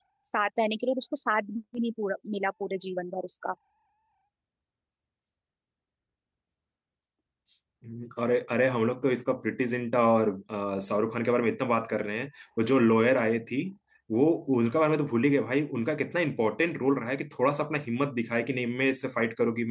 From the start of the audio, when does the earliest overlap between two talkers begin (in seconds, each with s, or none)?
none